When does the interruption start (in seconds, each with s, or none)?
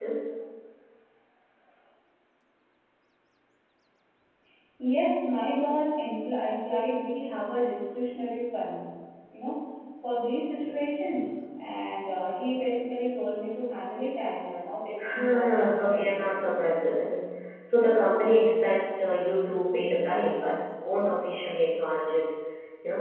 15.0 s